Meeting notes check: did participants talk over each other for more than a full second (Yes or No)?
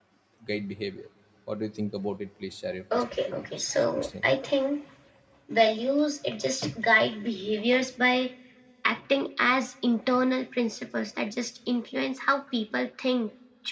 Yes